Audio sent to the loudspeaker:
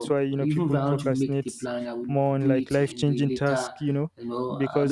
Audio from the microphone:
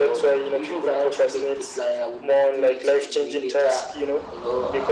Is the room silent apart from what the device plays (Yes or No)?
Yes